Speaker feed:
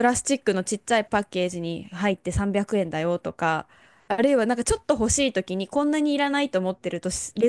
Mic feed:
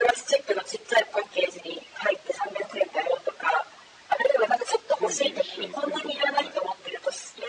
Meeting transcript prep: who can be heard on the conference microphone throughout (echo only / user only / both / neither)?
both